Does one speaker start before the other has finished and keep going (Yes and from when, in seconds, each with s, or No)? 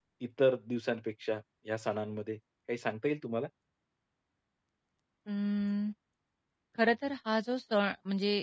No